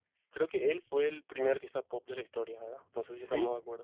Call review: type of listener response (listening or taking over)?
taking over